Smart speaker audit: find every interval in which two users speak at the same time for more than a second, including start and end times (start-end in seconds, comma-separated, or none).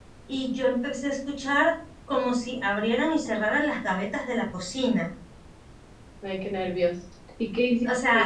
none